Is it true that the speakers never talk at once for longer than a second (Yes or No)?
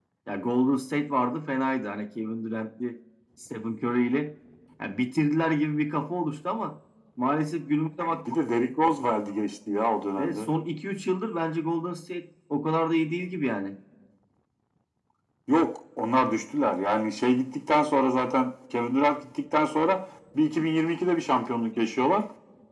Yes